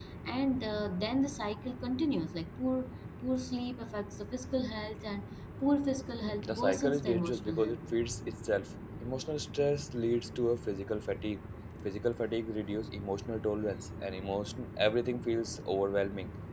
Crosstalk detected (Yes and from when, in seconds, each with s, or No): Yes, from 6.2 s